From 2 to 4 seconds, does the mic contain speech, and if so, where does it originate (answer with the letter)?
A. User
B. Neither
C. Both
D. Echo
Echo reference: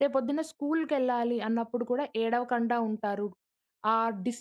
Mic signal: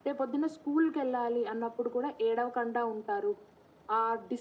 D